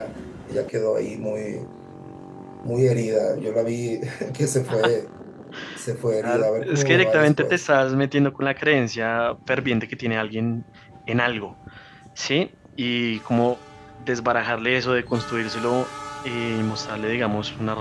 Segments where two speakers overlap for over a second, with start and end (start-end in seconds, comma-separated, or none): 6.2-7.6